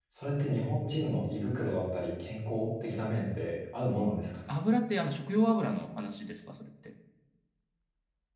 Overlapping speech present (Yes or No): No